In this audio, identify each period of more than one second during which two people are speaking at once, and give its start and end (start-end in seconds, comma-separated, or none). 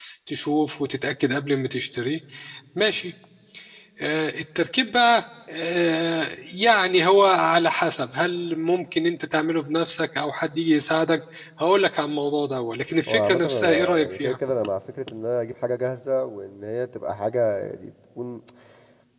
13.1-14.4